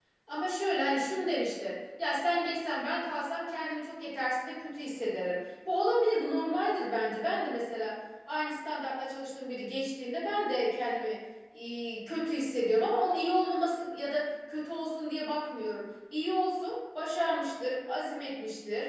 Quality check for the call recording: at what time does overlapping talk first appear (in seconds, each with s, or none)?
none